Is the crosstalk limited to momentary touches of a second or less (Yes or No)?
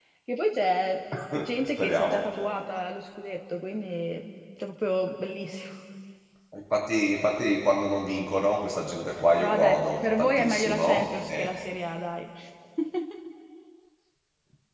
No